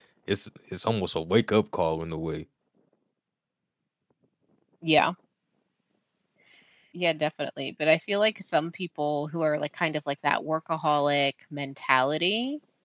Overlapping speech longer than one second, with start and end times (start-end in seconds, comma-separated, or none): none